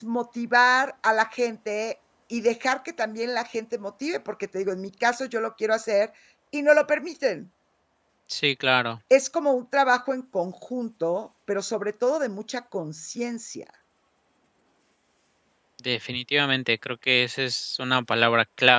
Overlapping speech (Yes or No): No